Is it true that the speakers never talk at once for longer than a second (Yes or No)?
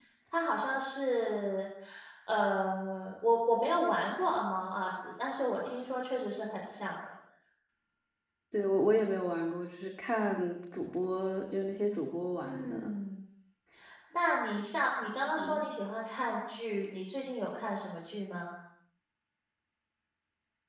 Yes